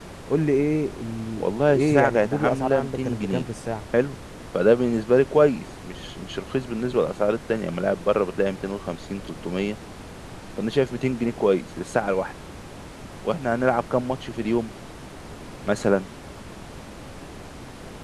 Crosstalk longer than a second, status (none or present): present